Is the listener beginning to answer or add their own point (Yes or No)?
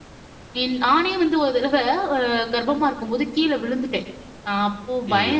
No